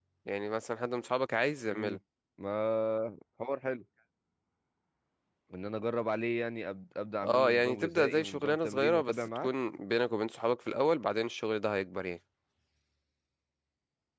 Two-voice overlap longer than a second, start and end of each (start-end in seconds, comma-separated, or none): 7.2-9.5